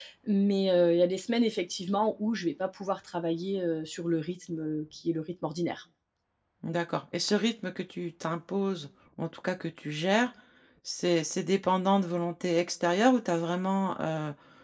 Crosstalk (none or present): none